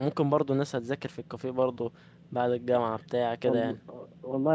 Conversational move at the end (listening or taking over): taking over